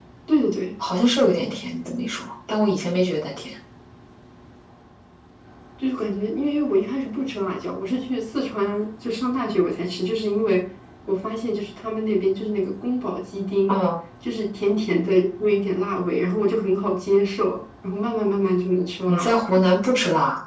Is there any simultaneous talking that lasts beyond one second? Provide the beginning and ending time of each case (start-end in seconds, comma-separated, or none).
none